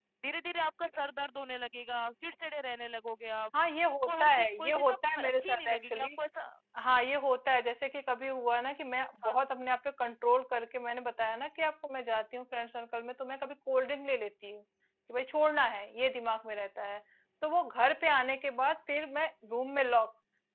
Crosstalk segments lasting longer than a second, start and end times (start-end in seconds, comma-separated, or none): 4.0-6.1